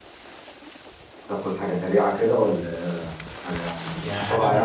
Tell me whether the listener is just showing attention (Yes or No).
No